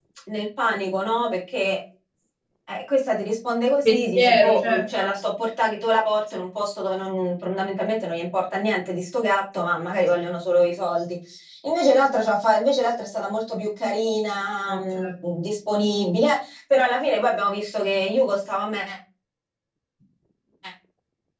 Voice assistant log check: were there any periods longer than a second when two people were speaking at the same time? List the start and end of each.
3.8-5.1

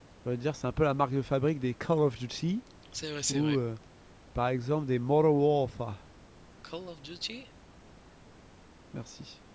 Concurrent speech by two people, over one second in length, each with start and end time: none

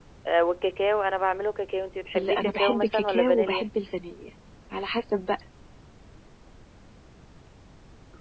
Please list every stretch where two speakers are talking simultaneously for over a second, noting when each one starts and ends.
2.2-3.7

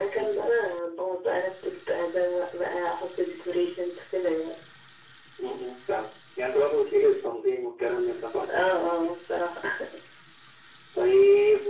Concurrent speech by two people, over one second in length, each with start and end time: none

